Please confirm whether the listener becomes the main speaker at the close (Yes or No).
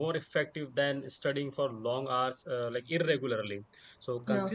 No